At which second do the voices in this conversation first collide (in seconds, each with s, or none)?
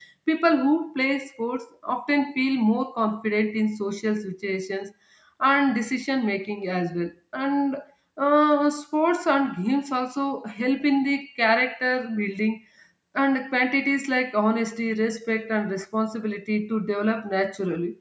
none